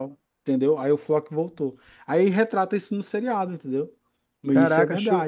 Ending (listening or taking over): taking over